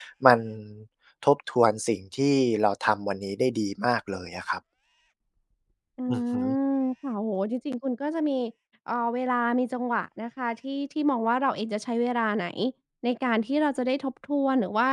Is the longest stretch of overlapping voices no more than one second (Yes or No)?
Yes